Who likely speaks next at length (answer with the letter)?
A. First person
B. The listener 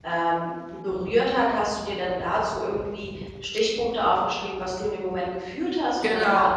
B